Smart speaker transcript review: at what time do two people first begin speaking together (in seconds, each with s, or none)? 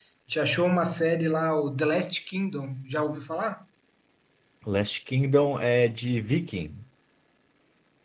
none